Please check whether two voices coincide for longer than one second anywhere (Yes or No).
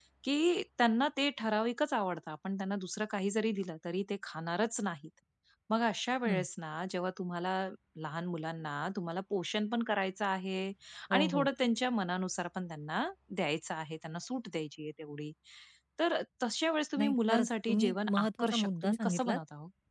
Yes